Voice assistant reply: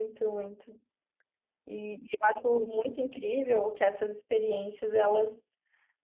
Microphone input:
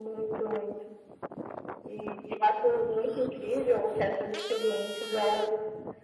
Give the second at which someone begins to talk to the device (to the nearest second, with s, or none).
none